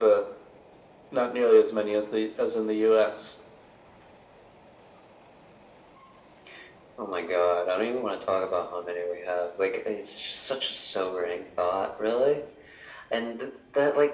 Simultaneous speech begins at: none

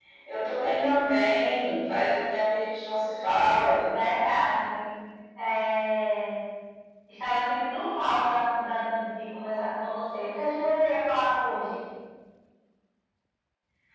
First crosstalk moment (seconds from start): none

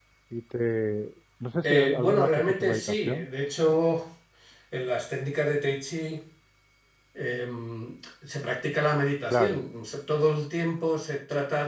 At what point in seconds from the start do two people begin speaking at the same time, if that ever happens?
1.6 s

